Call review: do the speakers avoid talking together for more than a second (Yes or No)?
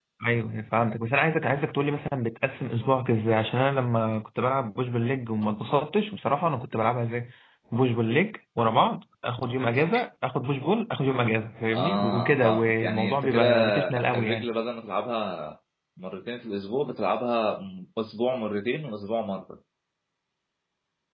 No